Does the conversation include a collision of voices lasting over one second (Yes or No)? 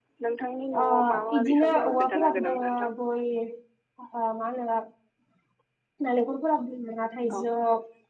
Yes